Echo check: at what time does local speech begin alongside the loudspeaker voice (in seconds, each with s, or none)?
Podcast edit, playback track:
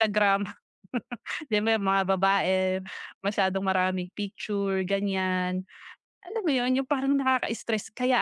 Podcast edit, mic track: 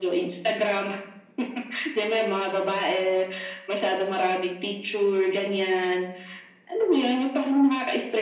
none